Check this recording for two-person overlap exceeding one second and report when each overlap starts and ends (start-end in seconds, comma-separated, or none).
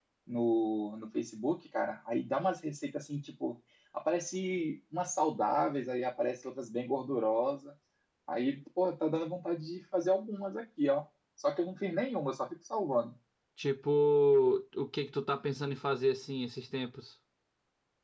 none